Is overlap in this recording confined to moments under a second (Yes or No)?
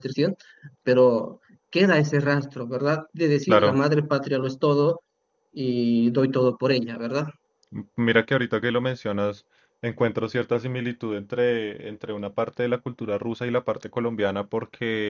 Yes